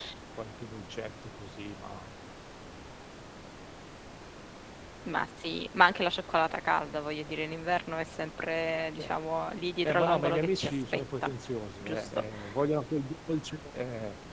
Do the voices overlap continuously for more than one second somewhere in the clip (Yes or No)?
Yes